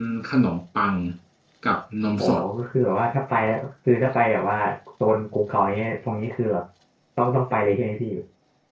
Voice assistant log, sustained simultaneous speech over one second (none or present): none